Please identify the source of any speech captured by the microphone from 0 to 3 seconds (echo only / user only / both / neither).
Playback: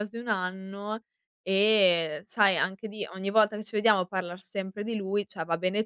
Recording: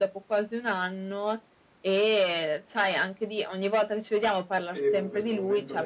echo only